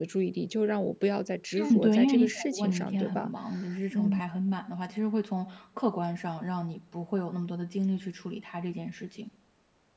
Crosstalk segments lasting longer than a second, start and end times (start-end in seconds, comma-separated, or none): 1.6-3.3